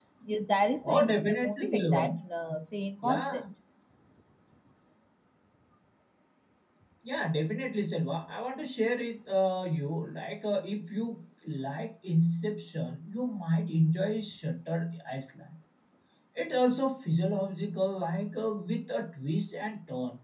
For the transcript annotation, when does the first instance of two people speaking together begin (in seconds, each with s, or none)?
0.8 s